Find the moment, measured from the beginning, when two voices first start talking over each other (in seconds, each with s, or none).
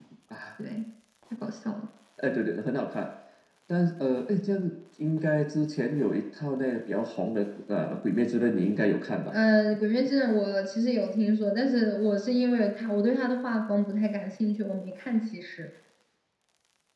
none